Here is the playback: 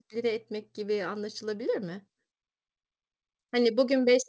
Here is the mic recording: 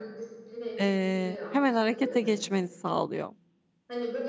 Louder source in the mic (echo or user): user